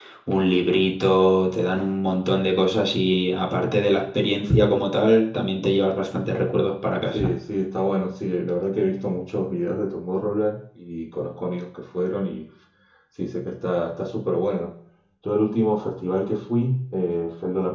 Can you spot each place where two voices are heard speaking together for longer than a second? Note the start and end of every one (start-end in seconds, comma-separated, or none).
none